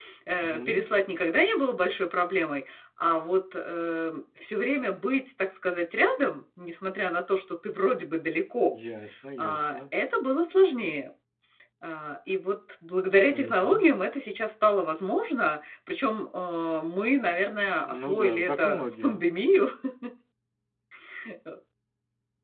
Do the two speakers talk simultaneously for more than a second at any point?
Yes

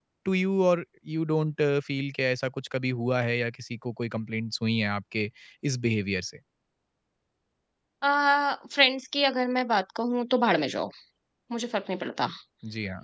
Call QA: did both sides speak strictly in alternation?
Yes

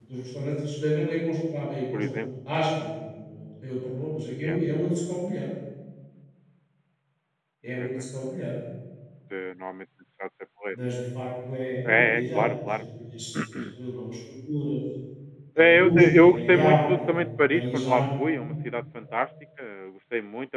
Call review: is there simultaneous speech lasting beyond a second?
Yes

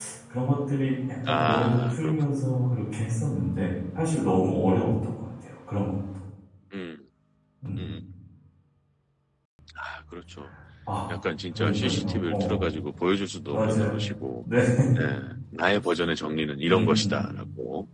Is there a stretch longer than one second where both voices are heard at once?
Yes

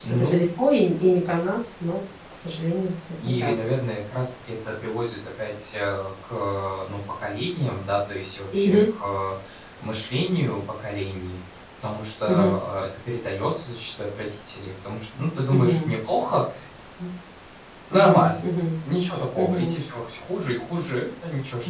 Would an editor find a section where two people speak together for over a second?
No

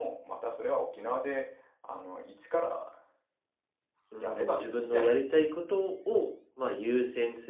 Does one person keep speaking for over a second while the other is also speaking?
Yes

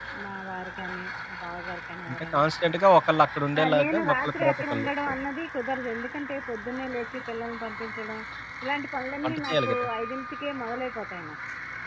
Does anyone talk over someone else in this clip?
Yes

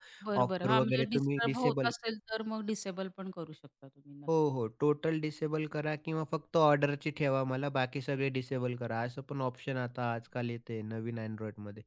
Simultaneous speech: Yes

